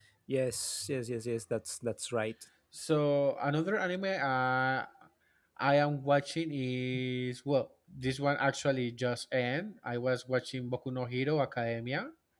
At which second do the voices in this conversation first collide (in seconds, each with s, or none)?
none